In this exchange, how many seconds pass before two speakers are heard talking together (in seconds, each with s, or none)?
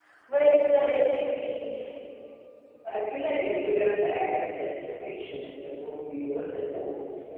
none